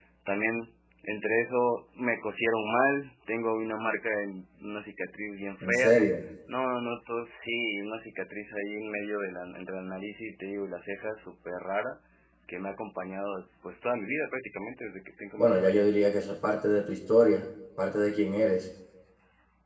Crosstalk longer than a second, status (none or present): none